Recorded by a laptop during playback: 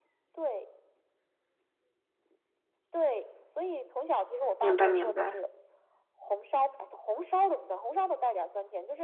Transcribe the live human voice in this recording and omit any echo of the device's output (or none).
明白明白。